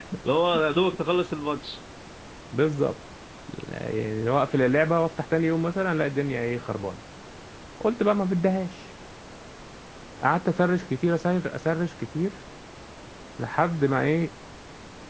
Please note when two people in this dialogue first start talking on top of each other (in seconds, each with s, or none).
none